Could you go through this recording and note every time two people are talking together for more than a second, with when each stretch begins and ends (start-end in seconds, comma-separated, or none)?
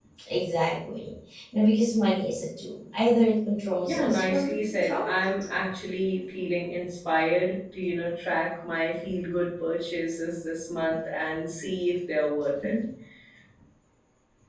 3.8-5.1